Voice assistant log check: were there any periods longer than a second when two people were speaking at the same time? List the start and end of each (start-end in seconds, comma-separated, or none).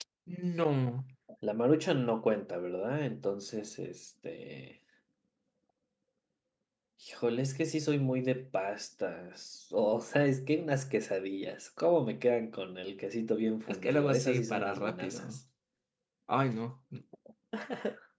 13.7-15.2